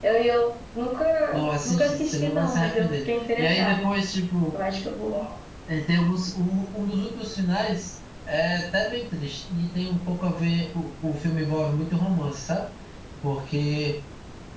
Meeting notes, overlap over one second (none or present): present